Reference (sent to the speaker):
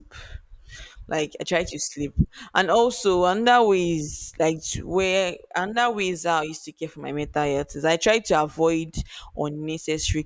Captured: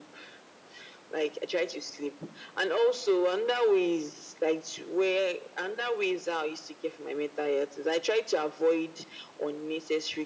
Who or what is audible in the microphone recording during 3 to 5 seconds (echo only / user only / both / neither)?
echo only